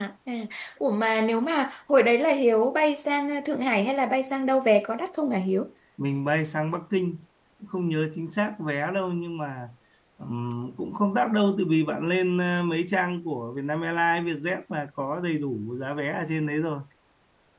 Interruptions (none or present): none